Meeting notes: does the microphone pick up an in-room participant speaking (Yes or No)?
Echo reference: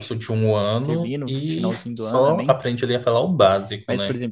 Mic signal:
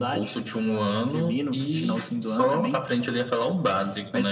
No